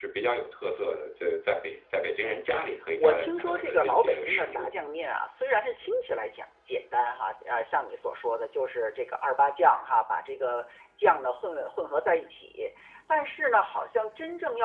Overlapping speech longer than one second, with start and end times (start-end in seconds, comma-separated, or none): 3.0-4.7